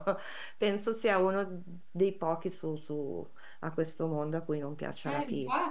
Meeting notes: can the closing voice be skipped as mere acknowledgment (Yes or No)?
Yes